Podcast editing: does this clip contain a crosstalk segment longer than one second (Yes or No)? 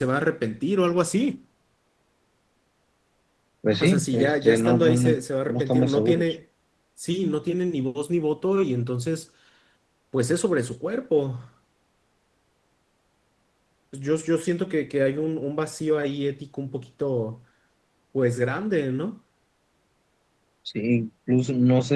Yes